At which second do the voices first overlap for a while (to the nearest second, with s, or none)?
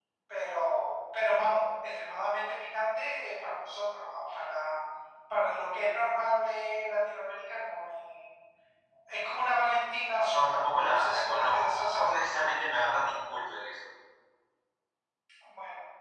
10 s